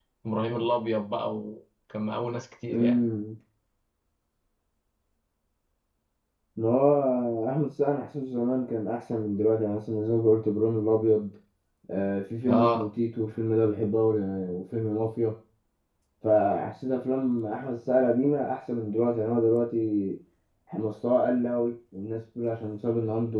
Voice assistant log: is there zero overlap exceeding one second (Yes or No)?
Yes